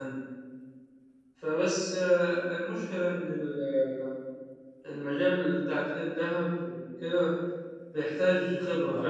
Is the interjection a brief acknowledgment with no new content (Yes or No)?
Yes